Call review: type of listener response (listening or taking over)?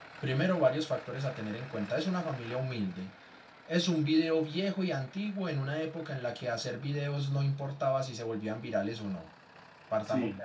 listening